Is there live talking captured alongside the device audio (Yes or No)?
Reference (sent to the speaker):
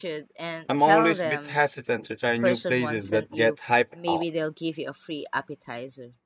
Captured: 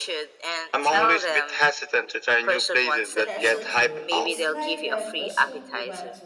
Yes